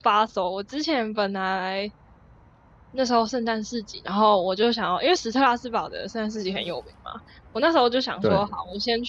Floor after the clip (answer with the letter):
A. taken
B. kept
B